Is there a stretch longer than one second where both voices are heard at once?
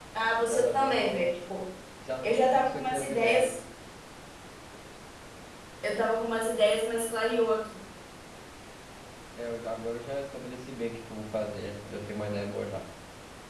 Yes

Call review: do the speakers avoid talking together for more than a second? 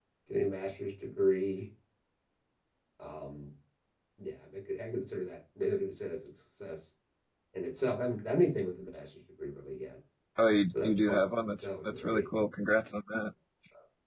No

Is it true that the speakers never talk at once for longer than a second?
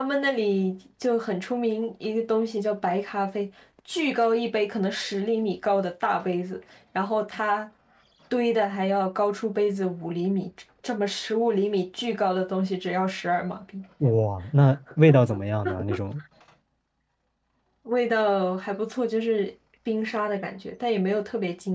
Yes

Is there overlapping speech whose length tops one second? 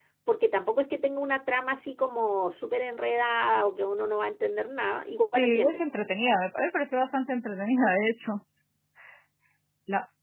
No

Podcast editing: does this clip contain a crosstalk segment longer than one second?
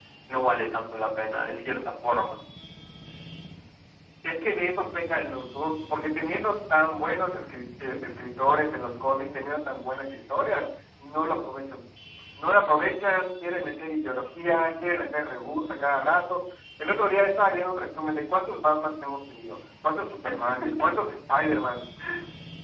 No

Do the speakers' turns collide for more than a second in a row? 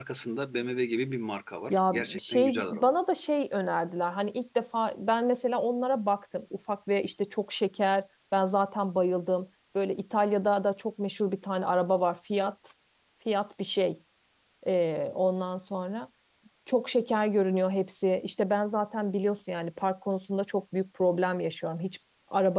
Yes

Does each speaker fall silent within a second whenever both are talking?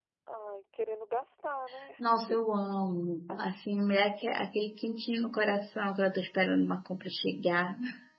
Yes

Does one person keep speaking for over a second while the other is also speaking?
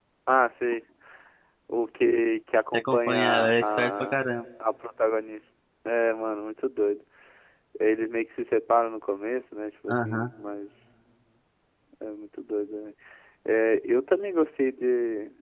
Yes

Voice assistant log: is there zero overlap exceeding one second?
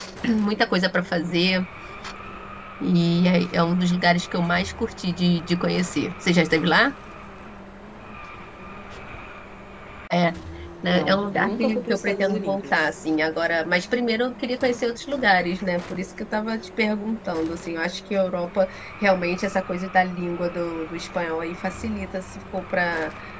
No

